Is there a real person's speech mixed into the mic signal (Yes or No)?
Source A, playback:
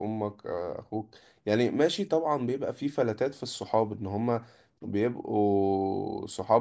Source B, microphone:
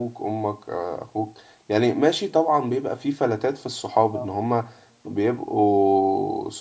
Yes